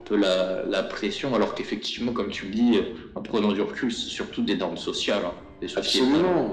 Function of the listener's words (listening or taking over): taking over